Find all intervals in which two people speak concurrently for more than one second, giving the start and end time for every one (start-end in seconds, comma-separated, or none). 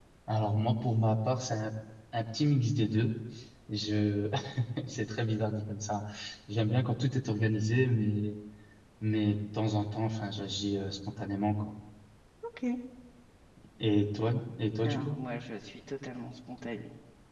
none